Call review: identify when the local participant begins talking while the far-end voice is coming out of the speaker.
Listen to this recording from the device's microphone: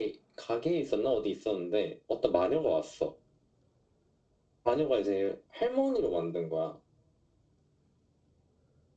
none

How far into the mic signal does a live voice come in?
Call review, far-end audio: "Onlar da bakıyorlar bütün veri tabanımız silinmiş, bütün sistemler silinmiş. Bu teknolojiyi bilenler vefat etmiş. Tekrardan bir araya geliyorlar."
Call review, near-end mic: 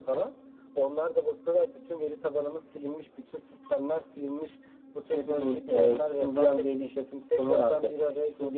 5.1 s

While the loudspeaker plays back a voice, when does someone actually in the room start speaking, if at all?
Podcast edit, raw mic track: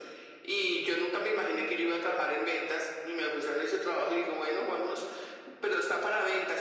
none

